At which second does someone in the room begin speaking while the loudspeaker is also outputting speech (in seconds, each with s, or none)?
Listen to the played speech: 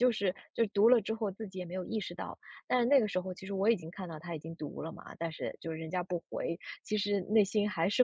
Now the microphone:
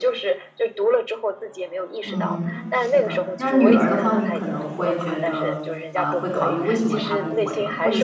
2.0 s